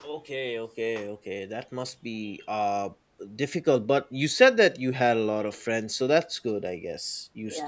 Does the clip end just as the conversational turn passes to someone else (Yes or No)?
Yes